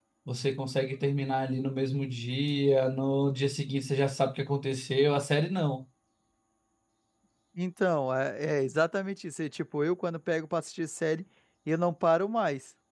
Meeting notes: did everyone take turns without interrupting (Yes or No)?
Yes